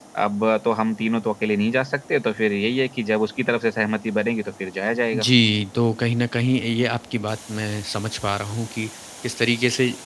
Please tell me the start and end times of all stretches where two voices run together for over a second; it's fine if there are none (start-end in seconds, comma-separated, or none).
none